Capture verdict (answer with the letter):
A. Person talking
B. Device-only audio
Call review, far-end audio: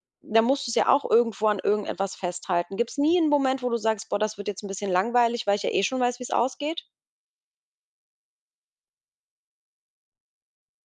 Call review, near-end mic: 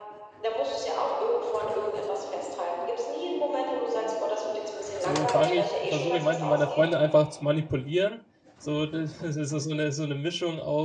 A